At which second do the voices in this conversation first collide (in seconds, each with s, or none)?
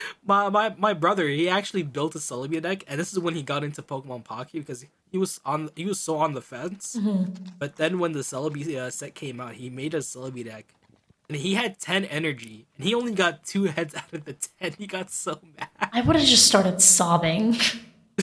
none